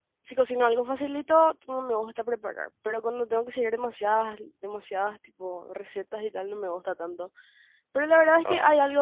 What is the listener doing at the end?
listening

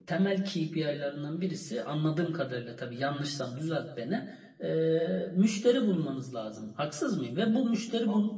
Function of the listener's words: listening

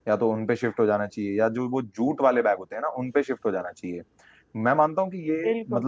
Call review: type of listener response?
listening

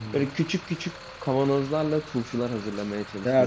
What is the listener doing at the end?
taking over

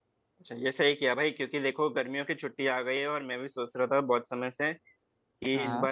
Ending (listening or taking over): listening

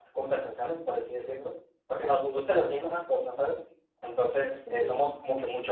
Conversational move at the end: listening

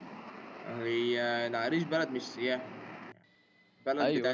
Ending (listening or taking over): listening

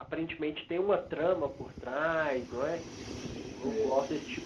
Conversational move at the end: listening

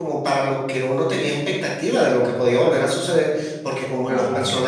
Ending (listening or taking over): listening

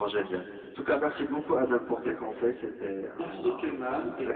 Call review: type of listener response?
taking over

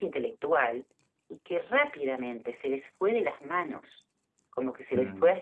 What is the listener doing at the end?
listening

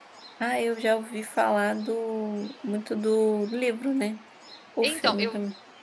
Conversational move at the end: taking over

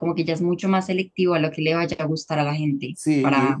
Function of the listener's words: taking over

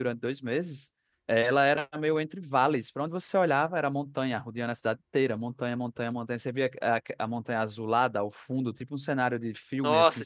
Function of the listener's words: taking over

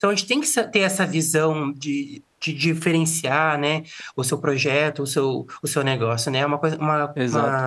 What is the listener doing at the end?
taking over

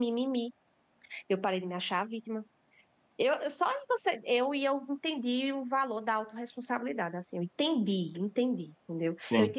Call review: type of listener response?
listening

